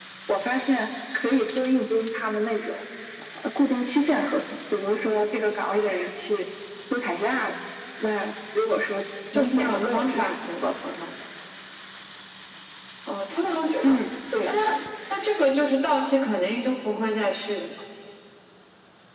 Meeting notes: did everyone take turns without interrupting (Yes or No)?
No